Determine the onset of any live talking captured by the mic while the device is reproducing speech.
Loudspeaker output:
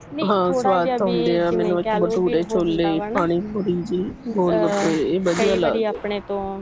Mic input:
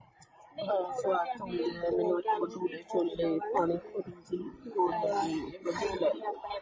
none

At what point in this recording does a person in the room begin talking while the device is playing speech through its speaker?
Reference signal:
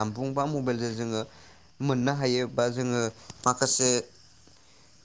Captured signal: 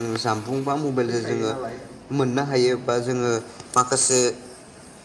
1.0 s

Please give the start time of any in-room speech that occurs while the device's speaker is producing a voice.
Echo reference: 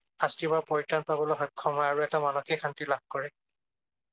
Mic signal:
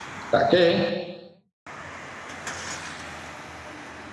0.3 s

